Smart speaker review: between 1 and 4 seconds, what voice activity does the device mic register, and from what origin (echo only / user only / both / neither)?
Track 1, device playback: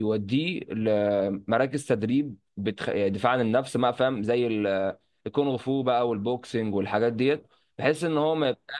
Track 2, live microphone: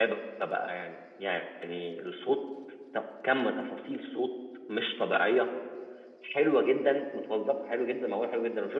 user only